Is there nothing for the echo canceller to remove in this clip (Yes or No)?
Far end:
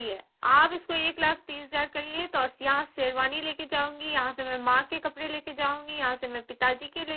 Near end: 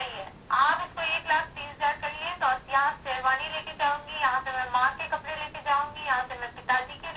No